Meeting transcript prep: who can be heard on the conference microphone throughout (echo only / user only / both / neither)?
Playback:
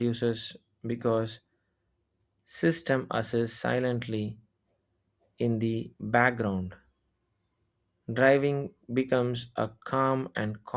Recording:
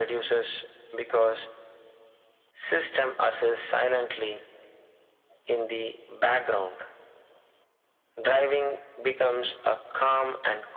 echo only